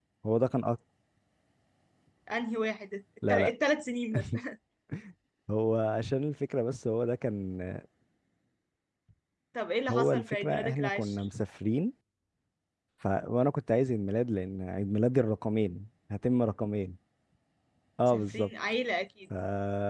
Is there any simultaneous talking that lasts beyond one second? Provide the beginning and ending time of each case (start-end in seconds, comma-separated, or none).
9.9-11.2